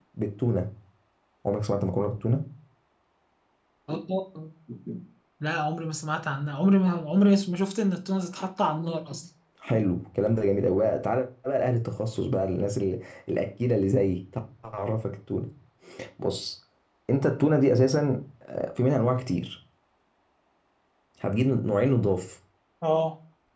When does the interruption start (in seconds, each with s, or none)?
none